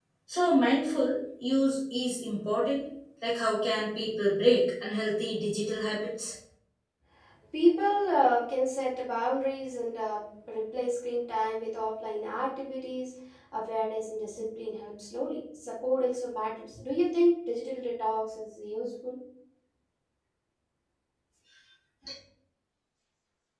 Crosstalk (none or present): none